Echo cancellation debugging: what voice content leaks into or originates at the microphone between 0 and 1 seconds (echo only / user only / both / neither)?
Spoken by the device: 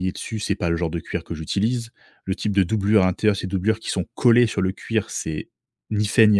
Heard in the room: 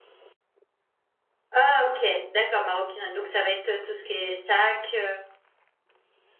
neither